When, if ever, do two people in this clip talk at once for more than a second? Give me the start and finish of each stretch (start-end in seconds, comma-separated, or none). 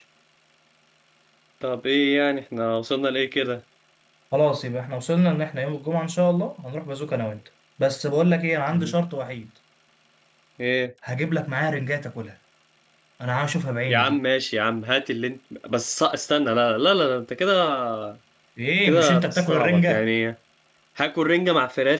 18.8-20.0